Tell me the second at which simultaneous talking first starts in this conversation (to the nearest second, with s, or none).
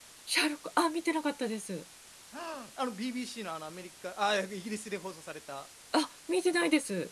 none